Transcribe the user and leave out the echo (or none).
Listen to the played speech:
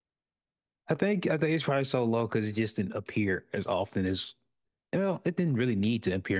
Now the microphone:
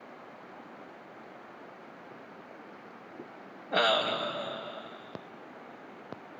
Um,